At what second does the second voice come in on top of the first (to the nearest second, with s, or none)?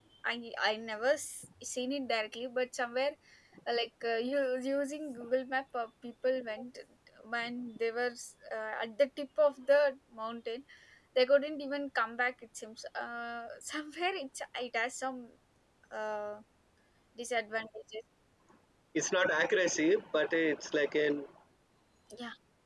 none